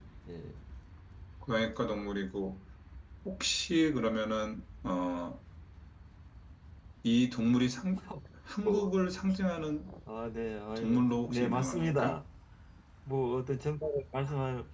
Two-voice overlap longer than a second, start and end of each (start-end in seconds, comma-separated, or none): 10.8-12.2